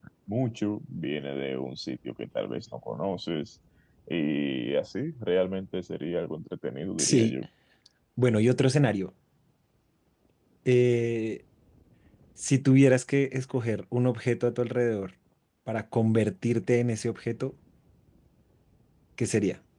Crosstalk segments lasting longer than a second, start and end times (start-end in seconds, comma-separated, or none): none